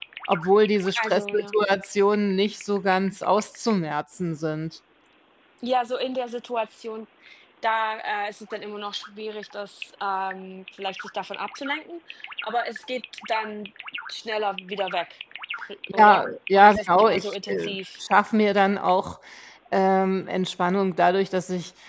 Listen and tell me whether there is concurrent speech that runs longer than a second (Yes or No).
Yes